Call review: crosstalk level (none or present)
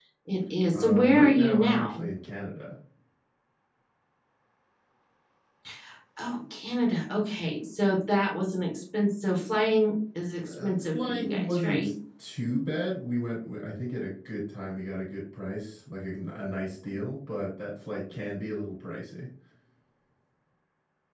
present